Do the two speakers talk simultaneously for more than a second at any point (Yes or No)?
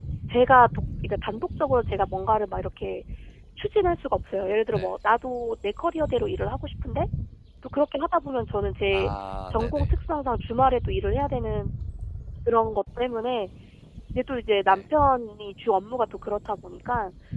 No